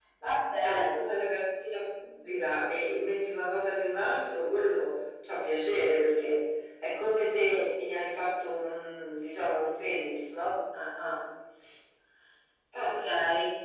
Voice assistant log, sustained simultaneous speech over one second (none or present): none